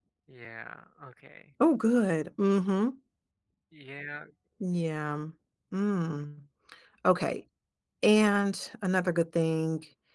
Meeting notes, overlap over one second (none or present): none